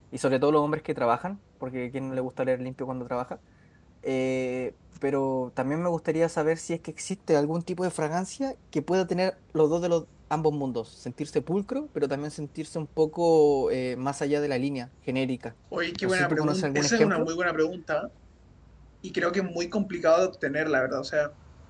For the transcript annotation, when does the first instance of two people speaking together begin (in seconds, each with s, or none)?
16.0 s